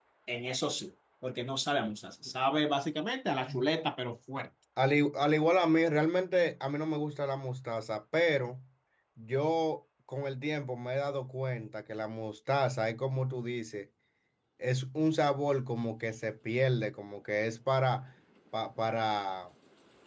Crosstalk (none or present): none